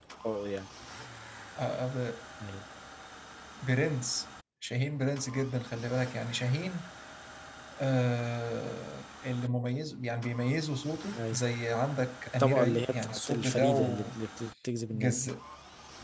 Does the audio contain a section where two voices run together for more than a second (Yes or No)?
Yes